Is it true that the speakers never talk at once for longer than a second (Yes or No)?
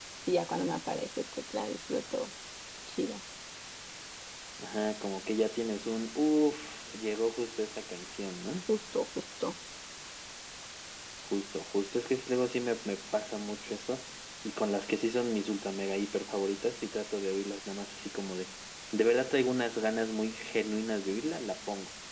Yes